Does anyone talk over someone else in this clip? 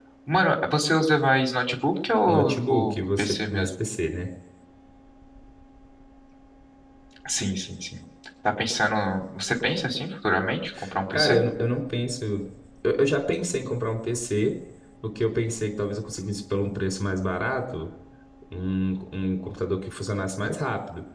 Yes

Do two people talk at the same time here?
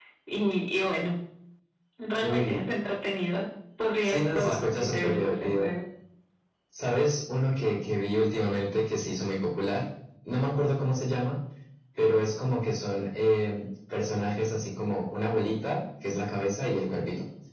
Yes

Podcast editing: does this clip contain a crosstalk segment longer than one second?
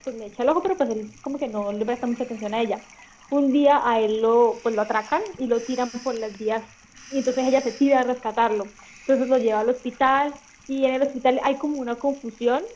No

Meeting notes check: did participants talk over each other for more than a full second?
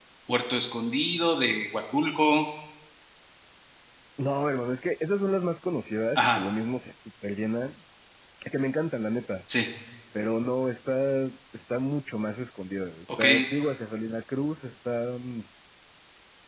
No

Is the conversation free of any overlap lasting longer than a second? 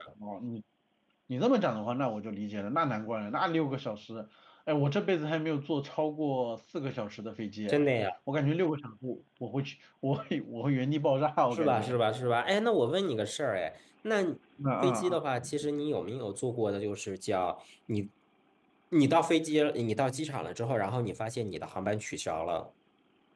Yes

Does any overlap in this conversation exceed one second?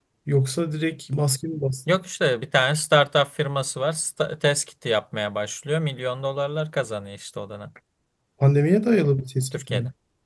No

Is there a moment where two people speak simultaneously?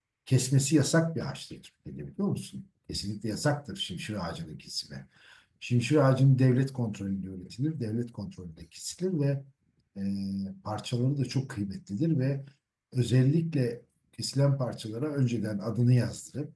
No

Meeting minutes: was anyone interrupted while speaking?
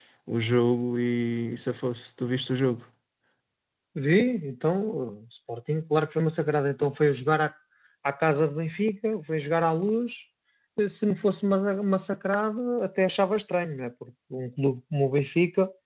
No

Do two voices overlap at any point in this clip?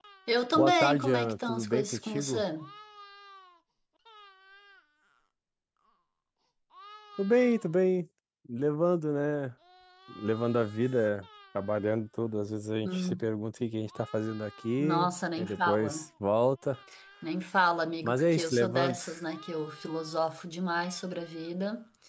Yes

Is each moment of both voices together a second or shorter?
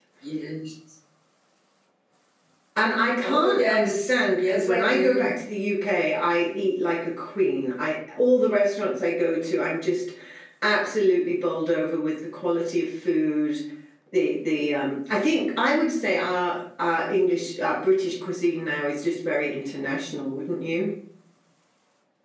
No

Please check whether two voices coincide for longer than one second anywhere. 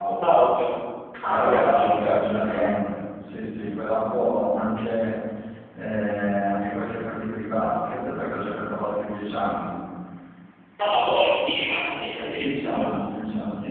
Yes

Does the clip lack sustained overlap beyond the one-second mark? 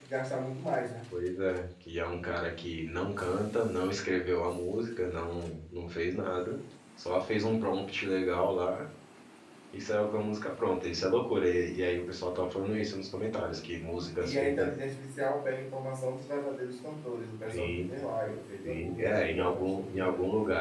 No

